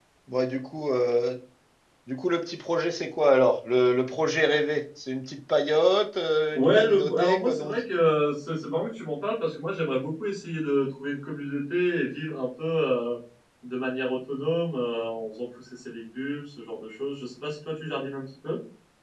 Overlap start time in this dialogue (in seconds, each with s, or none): 6.5 s